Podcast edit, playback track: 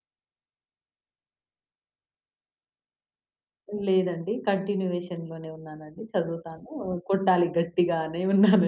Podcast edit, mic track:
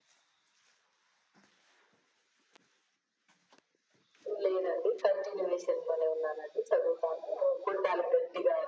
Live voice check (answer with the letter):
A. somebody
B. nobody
B